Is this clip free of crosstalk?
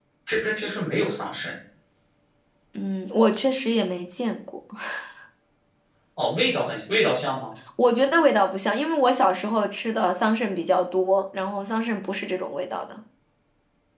Yes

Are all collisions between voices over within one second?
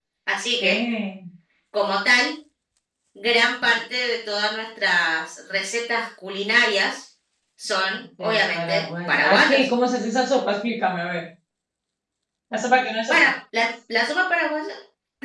No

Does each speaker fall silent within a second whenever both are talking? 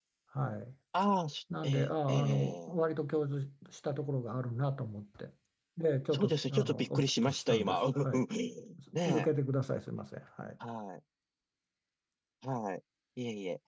No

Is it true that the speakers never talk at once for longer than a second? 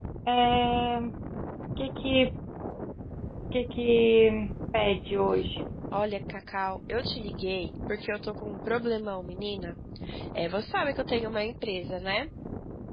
Yes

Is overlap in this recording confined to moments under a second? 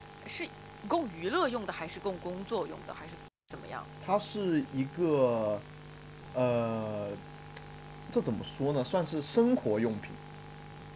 Yes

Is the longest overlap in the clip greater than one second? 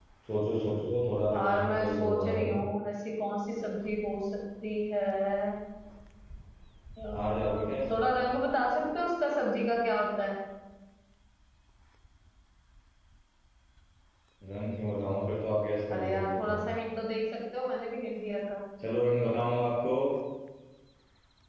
Yes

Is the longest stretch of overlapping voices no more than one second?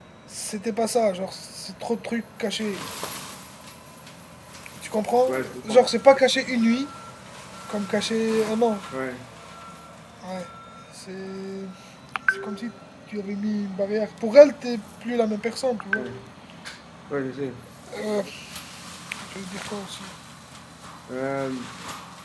Yes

